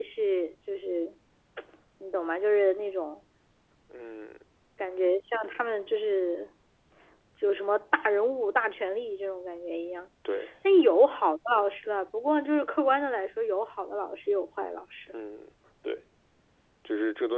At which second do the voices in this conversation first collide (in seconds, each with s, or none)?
none